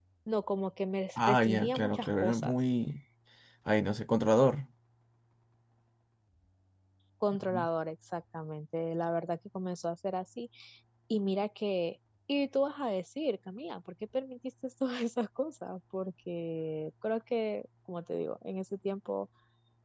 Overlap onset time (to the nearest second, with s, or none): 1 s